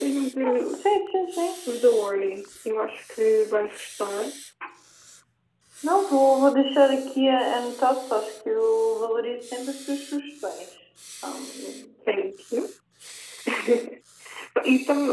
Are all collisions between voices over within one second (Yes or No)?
Yes